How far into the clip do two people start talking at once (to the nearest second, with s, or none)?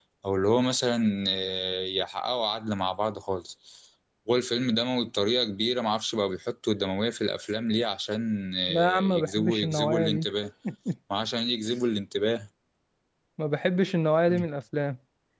9 s